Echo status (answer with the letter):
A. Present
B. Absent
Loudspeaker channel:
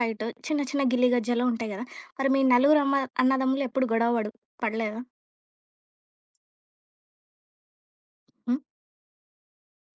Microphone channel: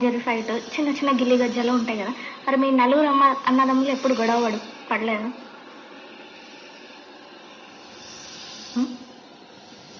A